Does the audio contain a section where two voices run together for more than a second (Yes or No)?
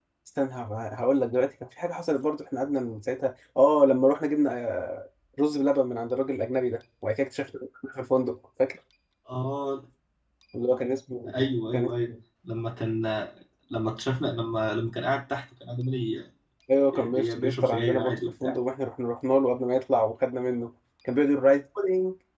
Yes